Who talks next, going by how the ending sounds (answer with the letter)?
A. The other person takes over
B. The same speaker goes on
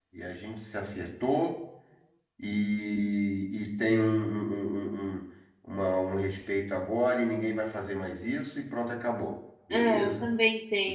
A